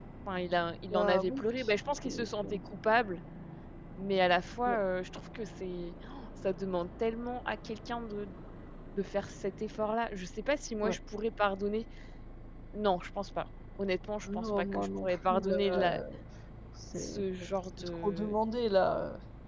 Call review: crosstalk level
present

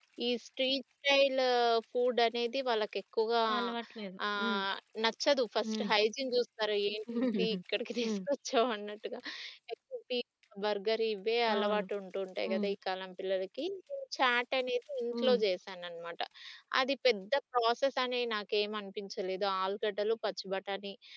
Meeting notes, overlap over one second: none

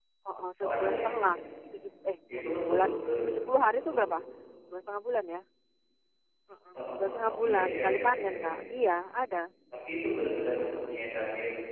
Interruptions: present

